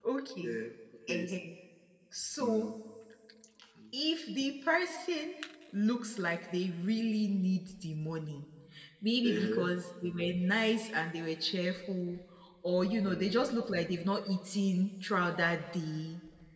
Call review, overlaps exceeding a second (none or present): none